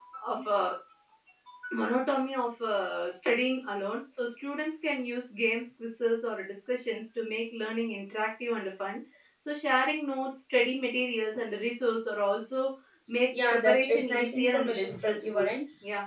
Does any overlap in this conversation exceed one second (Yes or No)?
Yes